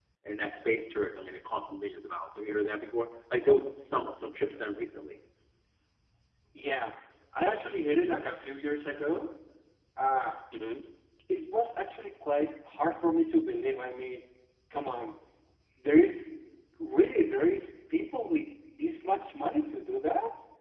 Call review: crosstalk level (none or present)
none